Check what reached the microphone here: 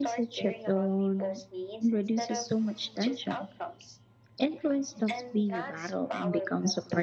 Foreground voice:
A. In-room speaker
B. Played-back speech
A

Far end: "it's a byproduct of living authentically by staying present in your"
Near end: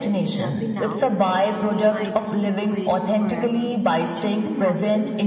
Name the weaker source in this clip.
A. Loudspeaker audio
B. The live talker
B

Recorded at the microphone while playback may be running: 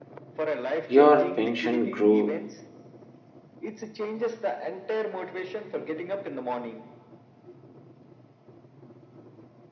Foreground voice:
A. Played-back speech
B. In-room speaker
B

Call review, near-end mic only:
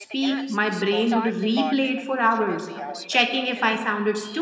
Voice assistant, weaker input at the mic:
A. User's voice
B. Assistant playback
B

